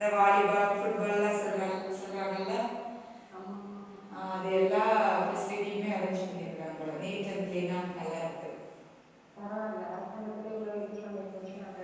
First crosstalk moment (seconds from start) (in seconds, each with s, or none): none